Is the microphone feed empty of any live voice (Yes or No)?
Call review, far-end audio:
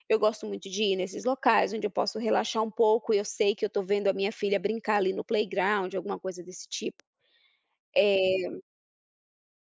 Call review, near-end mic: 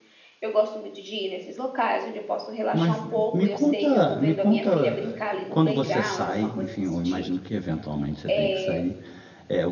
No